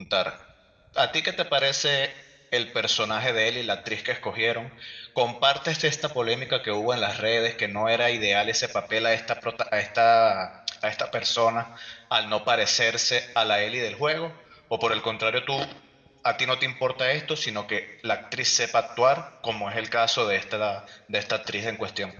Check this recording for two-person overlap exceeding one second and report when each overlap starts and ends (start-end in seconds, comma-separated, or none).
none